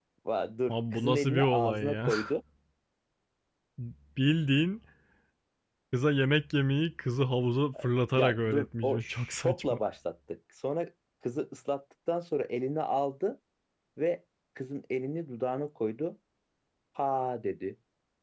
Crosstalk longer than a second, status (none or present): present